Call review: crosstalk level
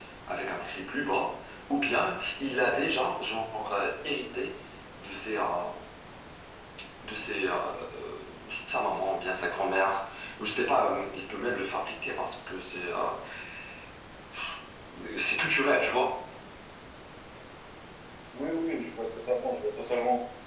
none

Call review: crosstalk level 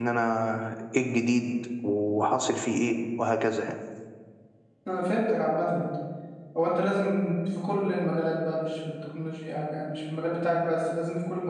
none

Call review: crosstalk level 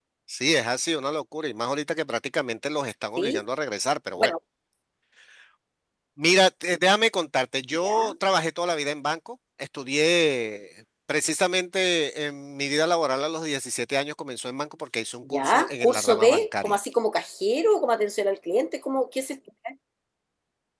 present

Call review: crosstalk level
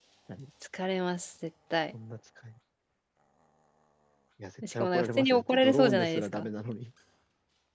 present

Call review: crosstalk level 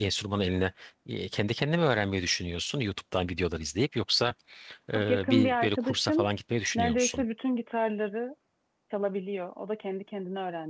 present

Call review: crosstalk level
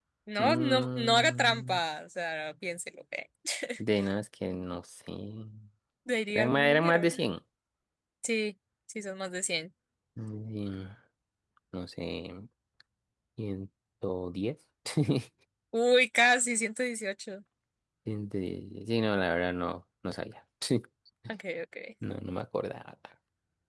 present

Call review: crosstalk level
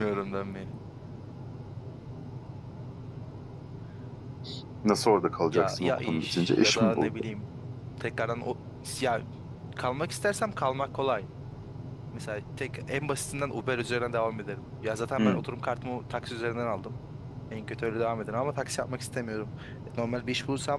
present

